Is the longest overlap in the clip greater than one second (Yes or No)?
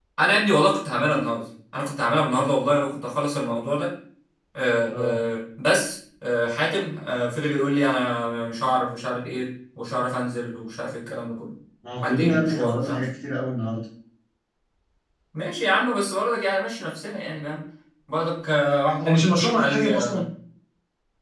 Yes